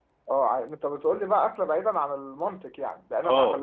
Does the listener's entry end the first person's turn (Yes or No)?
Yes